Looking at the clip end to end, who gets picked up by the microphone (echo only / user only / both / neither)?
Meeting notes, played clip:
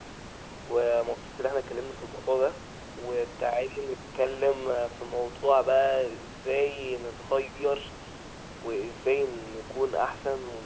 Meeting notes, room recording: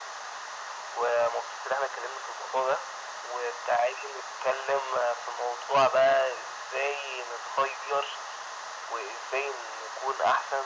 echo only